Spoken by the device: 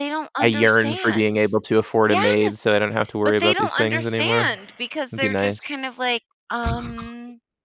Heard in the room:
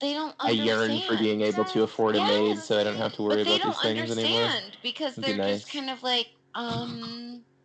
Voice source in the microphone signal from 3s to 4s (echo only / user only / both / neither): both